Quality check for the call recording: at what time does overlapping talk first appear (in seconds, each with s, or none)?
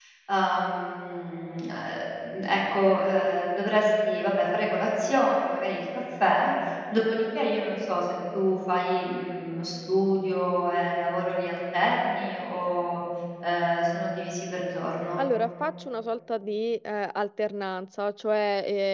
none